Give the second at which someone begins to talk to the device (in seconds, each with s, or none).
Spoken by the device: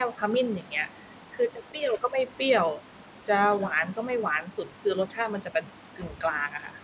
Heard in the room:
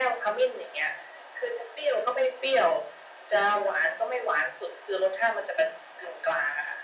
none